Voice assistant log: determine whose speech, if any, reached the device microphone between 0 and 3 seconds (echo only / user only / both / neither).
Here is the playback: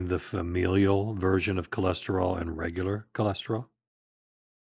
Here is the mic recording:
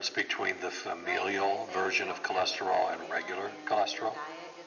both